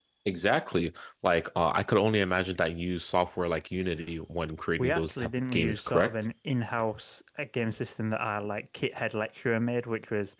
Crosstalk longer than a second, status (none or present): present